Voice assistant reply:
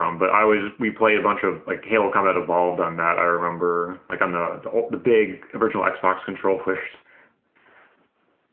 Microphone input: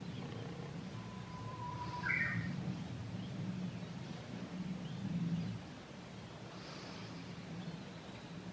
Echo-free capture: Yes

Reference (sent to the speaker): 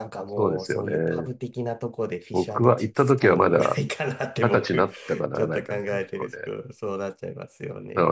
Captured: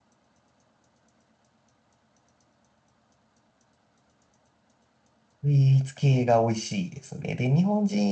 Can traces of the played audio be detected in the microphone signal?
No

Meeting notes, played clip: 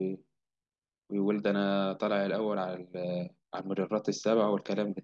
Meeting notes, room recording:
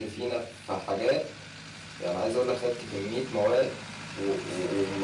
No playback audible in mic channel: Yes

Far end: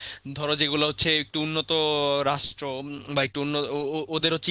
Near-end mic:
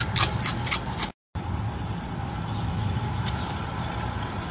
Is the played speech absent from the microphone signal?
Yes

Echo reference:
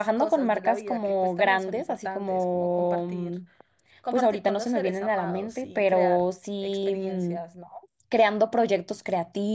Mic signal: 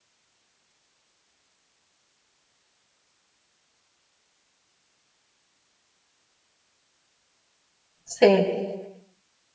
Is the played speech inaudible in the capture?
Yes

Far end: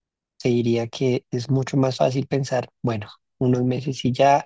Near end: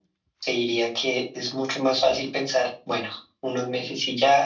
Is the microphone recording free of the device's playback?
No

